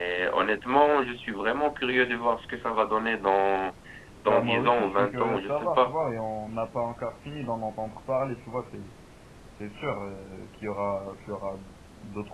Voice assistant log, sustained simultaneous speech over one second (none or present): present